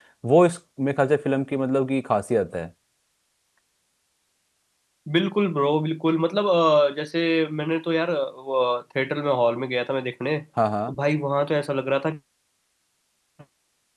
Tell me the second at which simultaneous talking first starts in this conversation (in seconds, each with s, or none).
none